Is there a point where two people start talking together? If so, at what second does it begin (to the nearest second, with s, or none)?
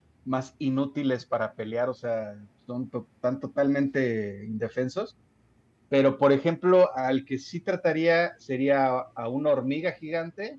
none